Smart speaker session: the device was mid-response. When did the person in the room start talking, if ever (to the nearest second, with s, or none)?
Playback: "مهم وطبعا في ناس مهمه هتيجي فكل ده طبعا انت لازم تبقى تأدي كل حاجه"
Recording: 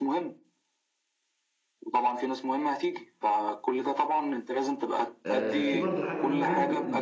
5 s